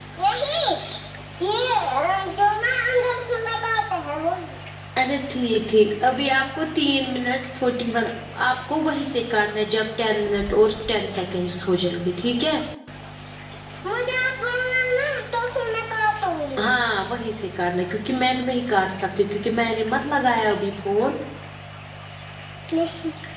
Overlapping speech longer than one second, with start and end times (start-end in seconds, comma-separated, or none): none